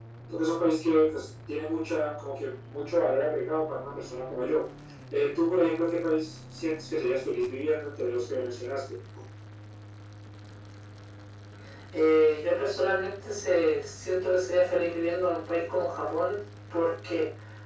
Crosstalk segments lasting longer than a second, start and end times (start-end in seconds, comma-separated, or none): none